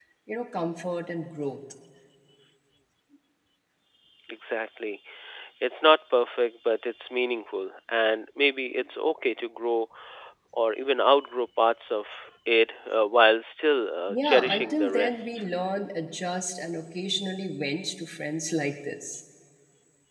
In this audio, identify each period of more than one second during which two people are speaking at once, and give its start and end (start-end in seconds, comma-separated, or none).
14.1-15.4